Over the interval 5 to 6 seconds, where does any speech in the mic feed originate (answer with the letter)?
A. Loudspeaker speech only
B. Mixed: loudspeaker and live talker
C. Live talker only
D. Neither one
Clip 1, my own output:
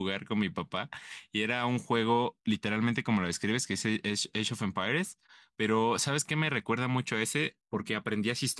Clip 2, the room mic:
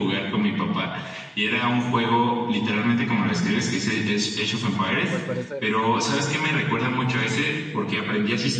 B